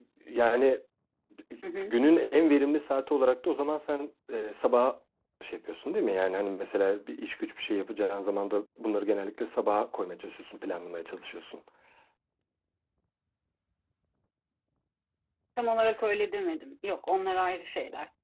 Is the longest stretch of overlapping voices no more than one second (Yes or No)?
Yes